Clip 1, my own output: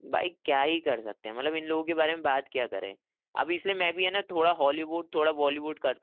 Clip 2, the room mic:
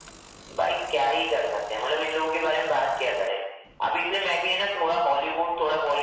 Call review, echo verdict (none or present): present